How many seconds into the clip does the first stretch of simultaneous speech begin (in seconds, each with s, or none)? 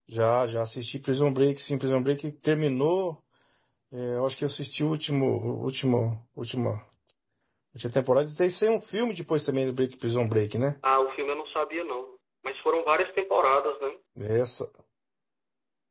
none